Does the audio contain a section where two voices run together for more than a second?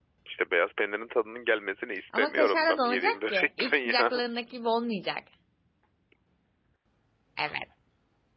Yes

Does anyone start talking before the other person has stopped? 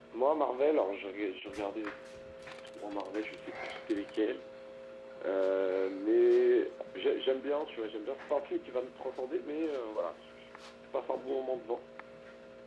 No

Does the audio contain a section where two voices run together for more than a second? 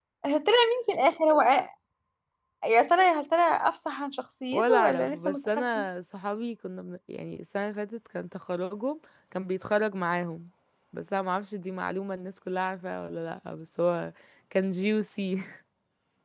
Yes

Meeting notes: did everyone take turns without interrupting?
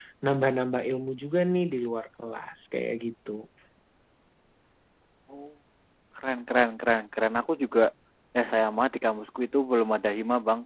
Yes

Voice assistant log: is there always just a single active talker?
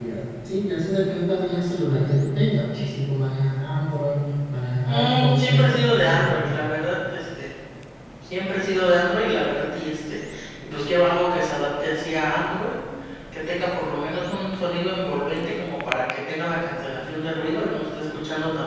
No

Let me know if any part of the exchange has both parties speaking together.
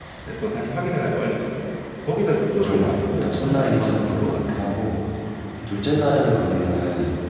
Yes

